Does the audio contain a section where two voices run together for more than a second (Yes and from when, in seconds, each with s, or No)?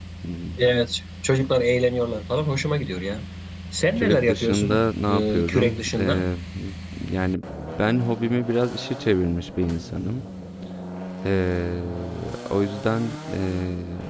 Yes, from 4.0 s